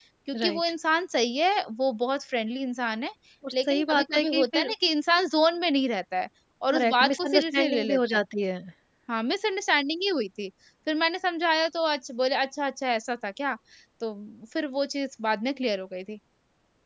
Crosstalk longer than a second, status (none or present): present